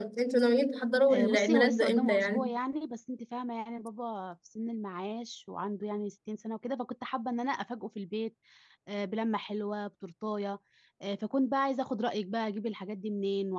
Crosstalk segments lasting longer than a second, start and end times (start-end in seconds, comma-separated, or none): 1.1-2.5